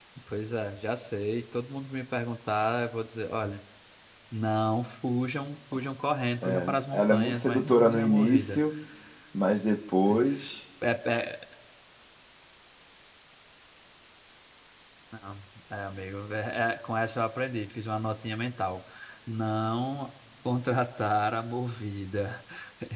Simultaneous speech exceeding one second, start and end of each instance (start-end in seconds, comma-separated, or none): 6.4-8.6